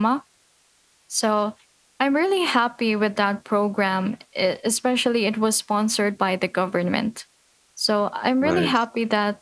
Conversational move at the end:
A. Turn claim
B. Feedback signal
B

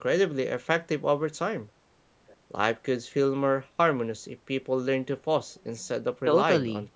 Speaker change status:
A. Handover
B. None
A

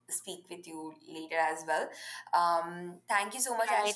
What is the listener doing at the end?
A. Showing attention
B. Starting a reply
B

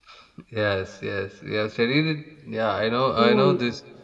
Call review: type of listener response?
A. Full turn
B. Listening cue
B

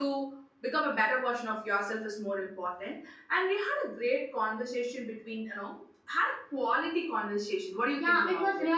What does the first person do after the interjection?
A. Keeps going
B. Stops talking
B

